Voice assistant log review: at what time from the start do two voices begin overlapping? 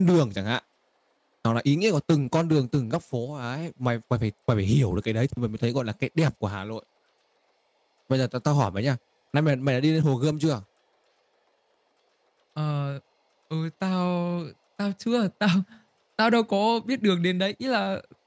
none

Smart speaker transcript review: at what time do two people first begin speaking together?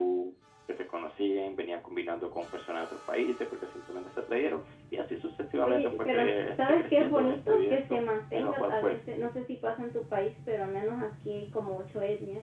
5.6 s

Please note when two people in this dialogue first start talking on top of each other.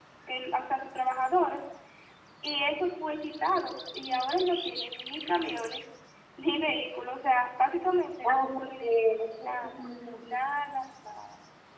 8.2 s

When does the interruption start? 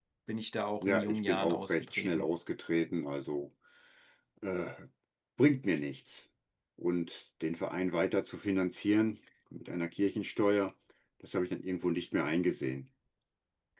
0.8 s

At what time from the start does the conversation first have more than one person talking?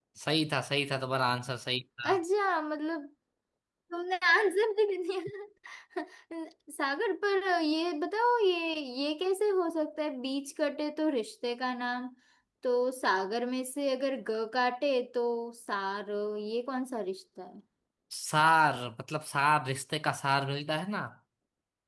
none

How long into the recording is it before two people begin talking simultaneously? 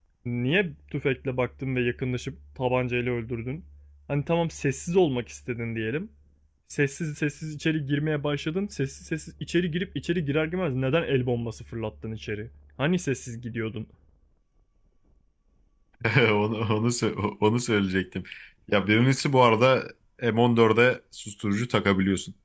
none

